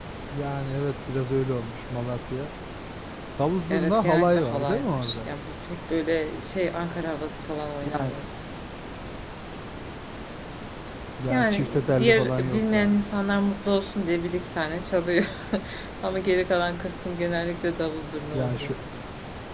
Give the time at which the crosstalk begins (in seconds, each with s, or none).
3.7 s